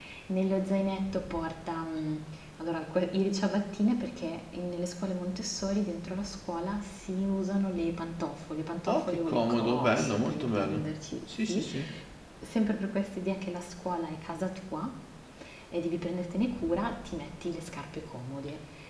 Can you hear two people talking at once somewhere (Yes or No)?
Yes